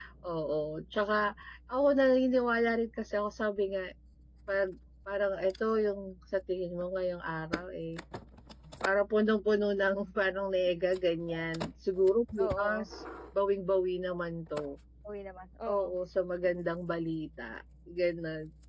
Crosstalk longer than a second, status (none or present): none